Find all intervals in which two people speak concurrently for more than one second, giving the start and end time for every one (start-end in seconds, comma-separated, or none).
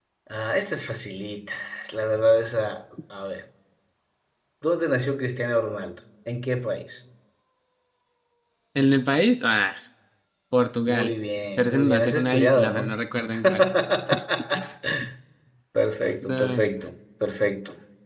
11.6-12.9